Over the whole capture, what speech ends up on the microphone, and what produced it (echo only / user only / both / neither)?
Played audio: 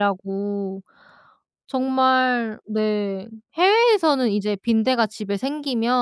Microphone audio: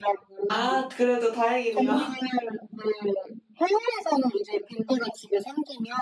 both